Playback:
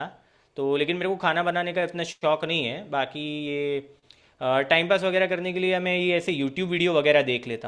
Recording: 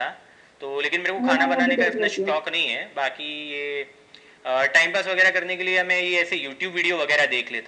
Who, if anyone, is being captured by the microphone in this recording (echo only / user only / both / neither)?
both